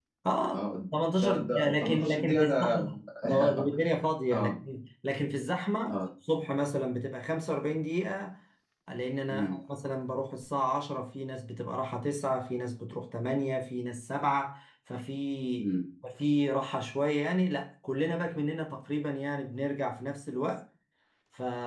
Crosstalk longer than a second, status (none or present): present